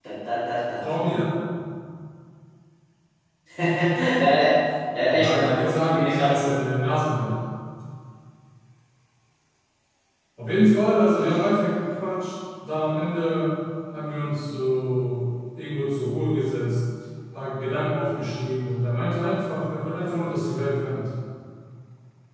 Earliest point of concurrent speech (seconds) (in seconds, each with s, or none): 5.1 s